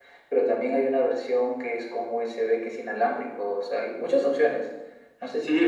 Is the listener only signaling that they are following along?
No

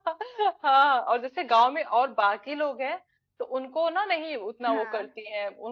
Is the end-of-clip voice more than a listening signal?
No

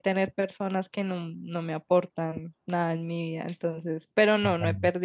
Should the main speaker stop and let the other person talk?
No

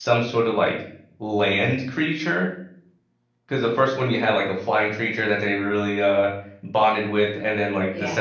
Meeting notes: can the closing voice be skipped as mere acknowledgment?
Yes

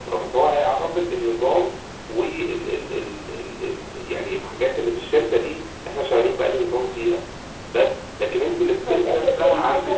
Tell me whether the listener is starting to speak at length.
Yes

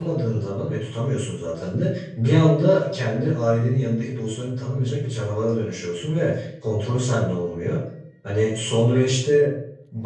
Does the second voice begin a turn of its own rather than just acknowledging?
No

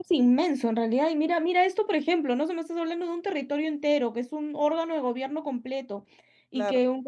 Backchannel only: Yes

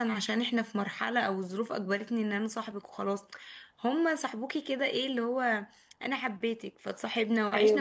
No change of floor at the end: Yes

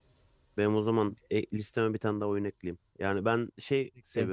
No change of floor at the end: Yes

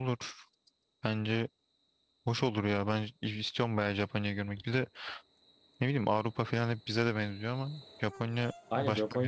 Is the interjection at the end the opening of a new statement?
Yes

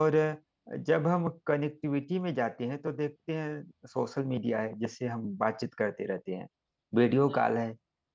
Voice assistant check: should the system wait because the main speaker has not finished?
Yes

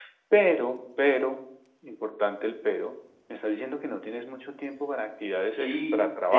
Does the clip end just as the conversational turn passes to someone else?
Yes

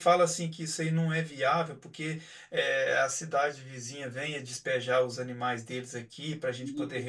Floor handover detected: No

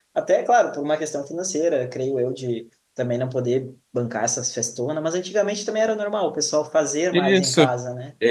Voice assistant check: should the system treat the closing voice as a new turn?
Yes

